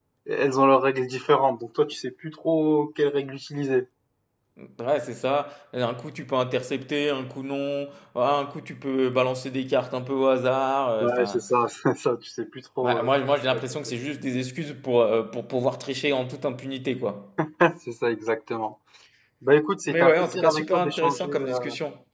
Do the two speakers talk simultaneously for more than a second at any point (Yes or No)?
Yes